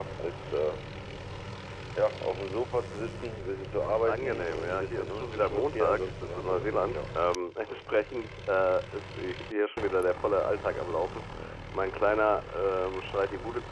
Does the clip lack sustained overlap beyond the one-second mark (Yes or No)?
No